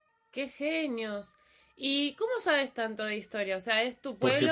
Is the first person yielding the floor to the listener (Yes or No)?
Yes